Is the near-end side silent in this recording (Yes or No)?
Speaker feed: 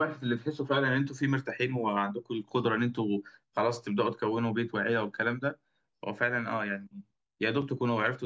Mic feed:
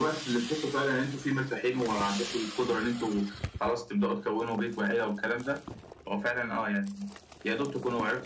Yes